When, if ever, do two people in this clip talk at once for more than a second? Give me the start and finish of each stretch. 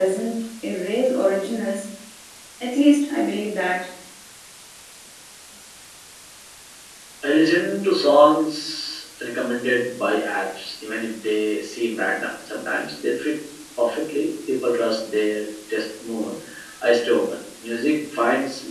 none

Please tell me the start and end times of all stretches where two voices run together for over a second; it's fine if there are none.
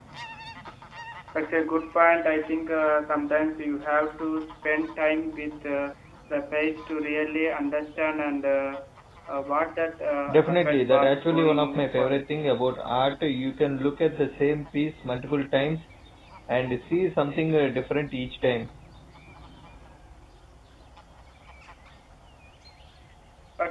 10.3-12.2

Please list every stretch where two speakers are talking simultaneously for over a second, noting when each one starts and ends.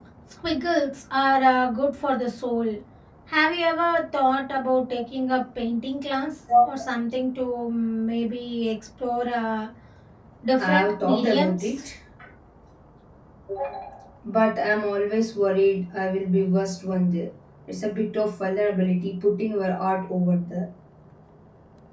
10.6-11.8

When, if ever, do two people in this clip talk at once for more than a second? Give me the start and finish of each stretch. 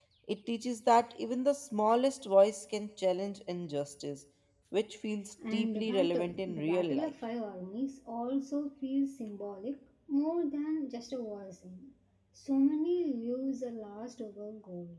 5.5-7.1

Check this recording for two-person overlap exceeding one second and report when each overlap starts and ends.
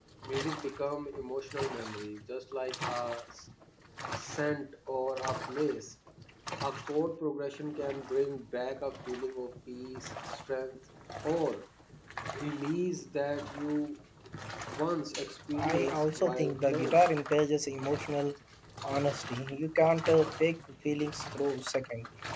15.6-17.1

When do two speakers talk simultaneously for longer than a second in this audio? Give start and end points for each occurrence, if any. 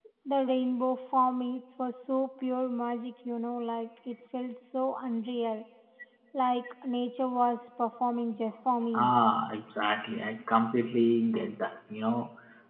none

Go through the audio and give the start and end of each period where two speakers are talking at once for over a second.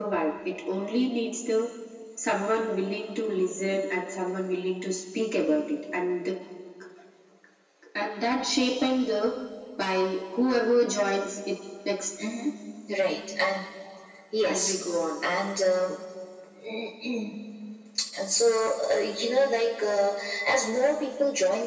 none

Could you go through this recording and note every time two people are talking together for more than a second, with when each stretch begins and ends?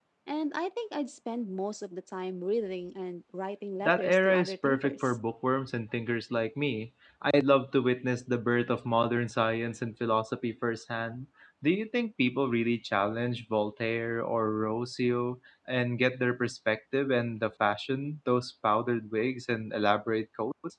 3.9-5.2

